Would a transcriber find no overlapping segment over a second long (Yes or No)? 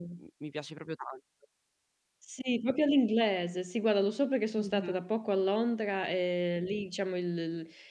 Yes